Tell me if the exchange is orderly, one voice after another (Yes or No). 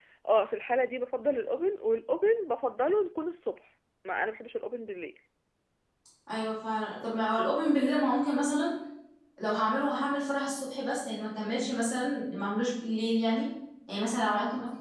Yes